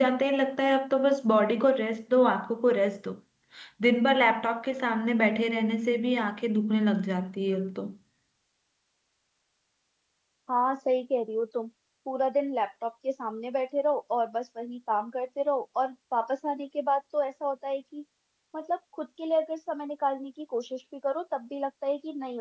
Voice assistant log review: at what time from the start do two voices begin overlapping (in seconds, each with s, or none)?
none